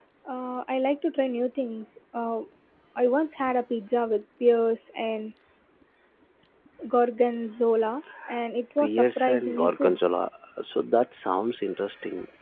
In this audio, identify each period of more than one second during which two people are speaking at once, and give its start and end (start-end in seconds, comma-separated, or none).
8.8-10.0